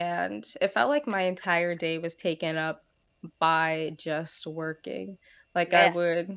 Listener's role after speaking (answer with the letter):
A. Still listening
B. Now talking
A